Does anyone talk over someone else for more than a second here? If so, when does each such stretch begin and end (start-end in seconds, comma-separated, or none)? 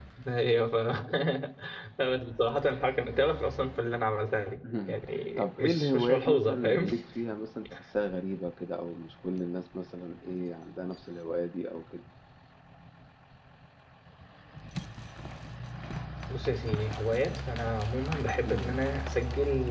5.4-6.8